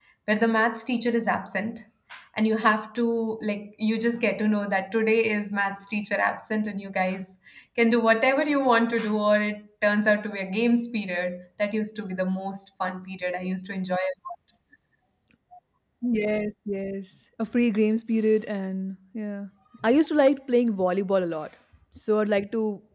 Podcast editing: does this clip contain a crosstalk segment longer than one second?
No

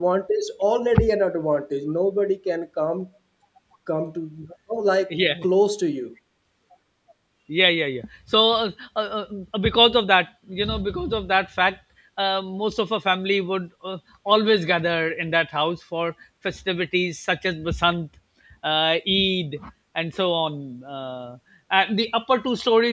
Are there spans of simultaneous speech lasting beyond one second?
No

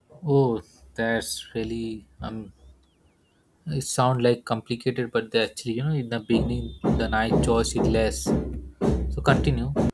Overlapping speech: No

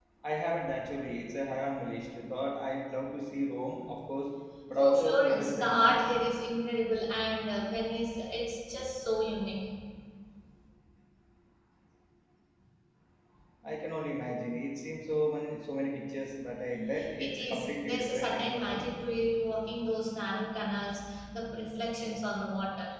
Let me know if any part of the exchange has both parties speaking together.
Yes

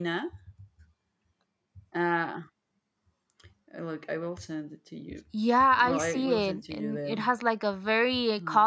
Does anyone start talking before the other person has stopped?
Yes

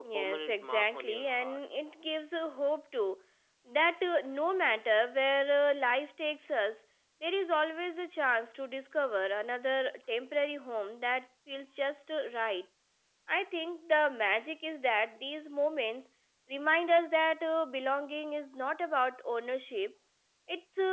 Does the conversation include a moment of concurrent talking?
Yes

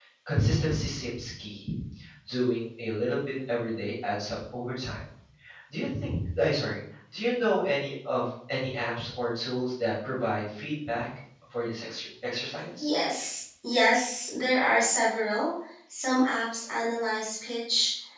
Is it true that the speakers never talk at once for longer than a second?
Yes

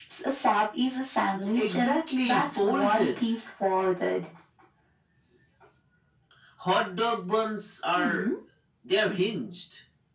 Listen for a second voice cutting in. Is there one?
Yes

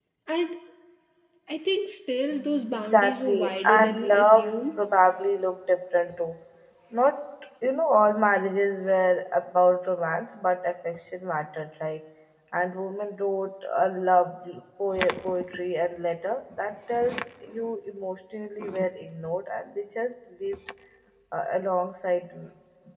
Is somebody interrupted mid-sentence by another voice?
Yes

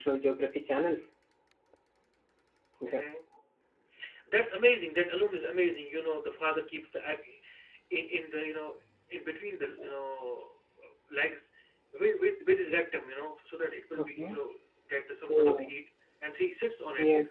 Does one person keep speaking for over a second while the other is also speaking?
No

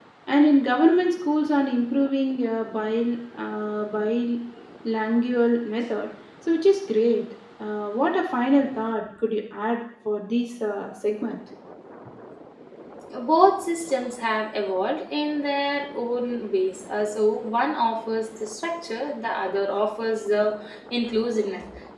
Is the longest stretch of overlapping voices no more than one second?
Yes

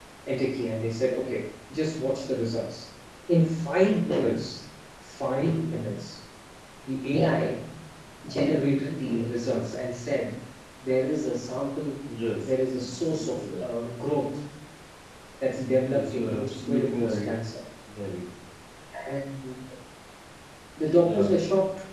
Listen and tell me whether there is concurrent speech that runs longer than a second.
Yes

